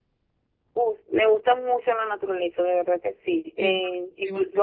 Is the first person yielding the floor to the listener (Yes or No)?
No